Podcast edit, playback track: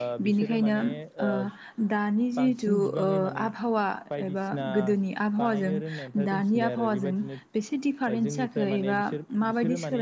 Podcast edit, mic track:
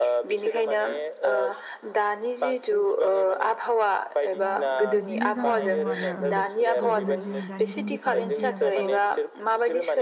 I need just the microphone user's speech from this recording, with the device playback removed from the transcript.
दा बि दिनो जाना दङ आरो गोदोनिजों दानिजों दिफारेन्स होनोबाथ' ओ

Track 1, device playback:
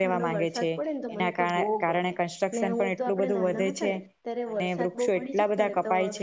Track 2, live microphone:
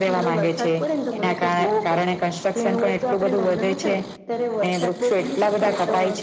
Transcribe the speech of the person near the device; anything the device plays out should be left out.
none

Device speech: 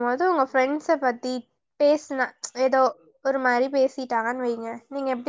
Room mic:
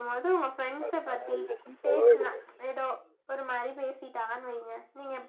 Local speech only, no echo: அதுக்கு கங்க்ராஜுலேஷன் சொல்லவே கூடாது

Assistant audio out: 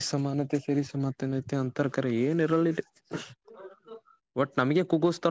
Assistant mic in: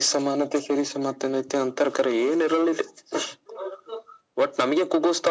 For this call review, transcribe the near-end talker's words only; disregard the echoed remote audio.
none

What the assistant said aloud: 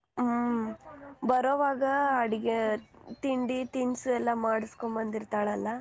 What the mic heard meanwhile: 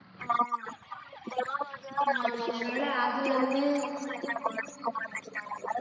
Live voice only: ಹಾ ಒಂದ್ ವೇಳೆ ಆಗಿಲ್ಲ ಅಂದ್ರೆ

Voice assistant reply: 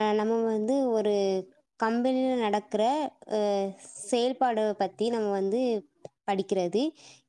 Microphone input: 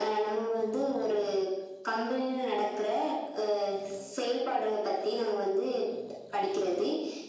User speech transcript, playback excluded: none

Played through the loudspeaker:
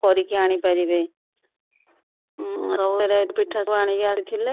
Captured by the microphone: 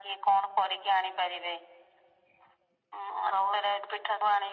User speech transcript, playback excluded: none

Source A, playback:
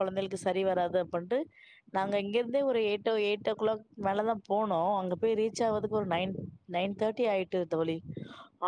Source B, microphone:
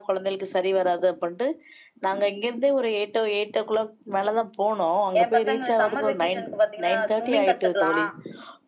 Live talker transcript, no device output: ஏ பசங்க சம்மர் வெகேஷன் இப்ப பாத்தீங்கனா ஸ்விம்மிங் கத்துக்லா

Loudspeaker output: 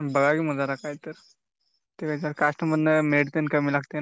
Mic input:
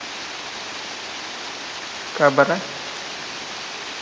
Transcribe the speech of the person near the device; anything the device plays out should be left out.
काय बर आहे.

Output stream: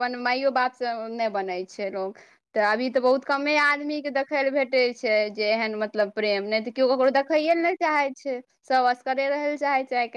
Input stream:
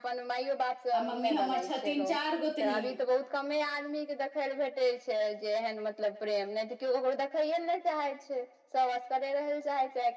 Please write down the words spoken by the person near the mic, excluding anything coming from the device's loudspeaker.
आ मम्मी हमर छथिन चार गोतनी।

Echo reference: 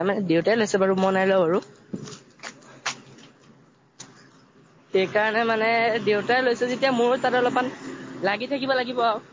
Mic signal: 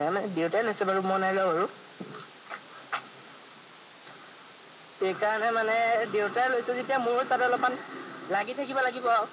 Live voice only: none

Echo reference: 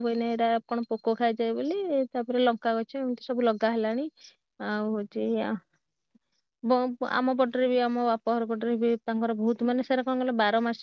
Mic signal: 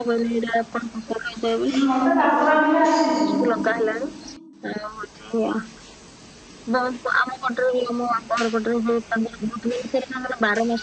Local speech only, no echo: ଉଁ ମତେ କାକରା ପିଠା ଆସିଛି।

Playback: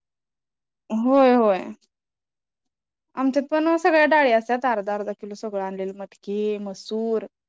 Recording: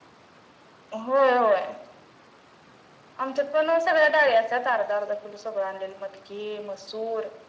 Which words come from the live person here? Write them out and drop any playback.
none

